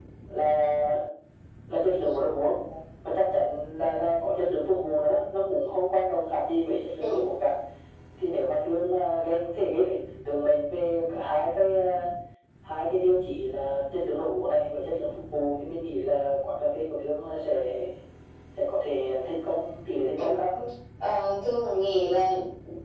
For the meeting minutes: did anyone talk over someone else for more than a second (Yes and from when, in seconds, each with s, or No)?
No